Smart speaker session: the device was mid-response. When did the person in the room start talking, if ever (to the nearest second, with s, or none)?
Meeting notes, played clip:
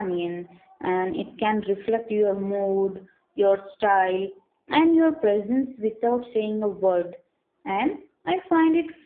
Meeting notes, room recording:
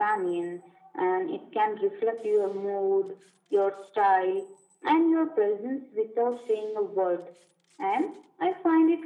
none